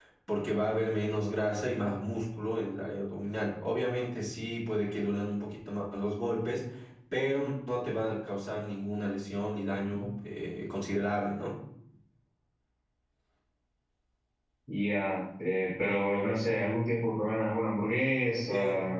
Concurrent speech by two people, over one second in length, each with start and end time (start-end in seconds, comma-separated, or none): none